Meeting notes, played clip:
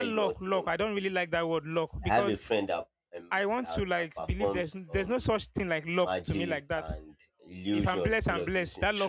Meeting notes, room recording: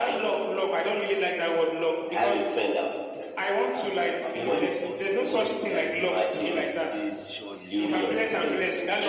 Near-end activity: present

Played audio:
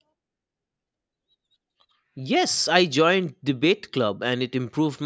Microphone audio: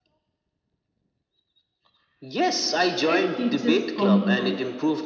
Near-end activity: present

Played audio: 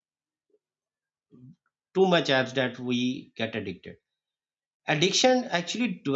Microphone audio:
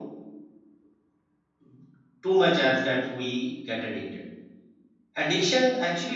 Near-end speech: none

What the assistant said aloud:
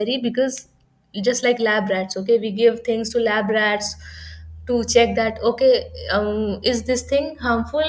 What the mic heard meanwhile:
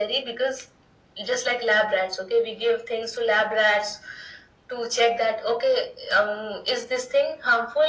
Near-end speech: none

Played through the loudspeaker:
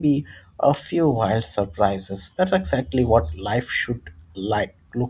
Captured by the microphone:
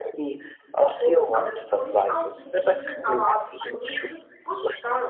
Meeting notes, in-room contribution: present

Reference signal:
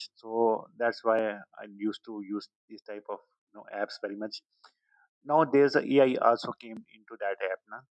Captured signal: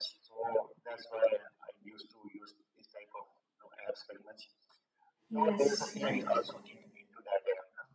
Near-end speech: present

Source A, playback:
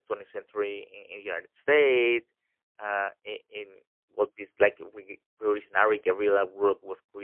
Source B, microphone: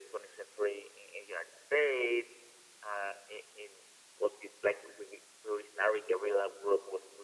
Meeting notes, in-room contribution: none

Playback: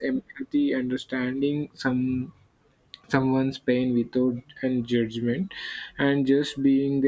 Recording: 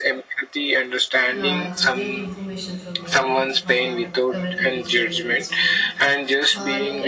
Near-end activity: present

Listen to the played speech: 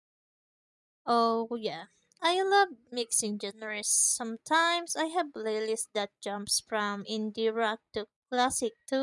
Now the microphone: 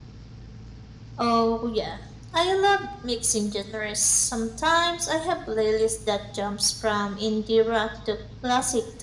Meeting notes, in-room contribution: none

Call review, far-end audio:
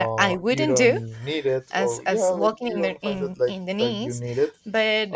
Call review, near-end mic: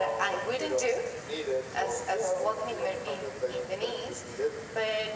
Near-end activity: none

